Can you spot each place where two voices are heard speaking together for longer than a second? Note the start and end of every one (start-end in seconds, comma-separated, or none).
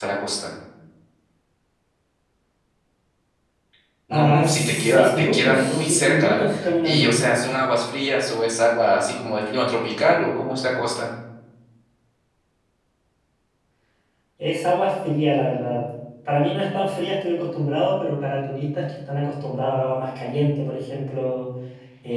4.1-6.4